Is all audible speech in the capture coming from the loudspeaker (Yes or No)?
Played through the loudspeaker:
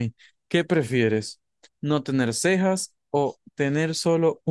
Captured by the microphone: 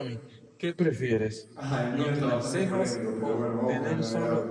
No